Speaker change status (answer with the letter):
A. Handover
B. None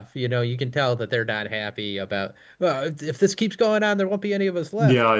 A